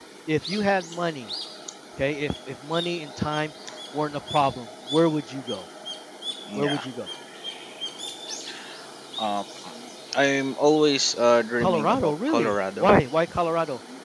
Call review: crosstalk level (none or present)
present